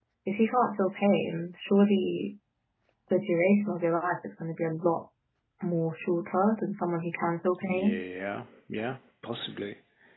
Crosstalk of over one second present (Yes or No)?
No